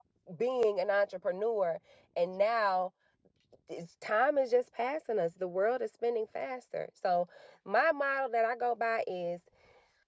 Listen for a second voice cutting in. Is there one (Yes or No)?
No